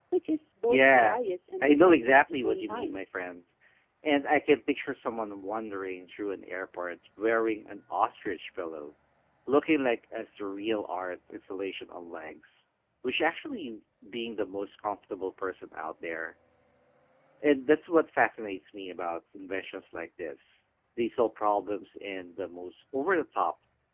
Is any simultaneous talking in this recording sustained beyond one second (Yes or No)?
Yes